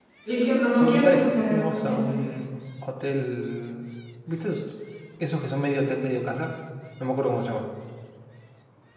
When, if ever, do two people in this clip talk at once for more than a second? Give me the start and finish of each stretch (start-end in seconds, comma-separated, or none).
0.8-2.0